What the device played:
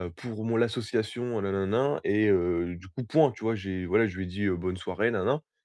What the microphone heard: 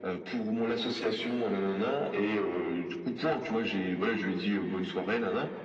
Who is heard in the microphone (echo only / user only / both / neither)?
echo only